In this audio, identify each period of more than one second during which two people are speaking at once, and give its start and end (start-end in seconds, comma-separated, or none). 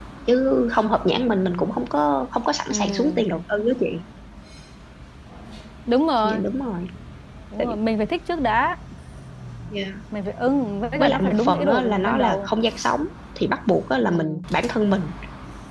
11.0-12.5